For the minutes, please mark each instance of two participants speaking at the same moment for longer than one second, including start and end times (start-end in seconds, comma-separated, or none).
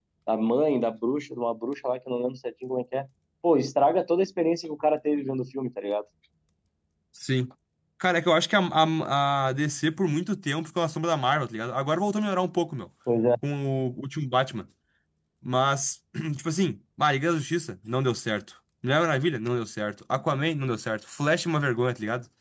none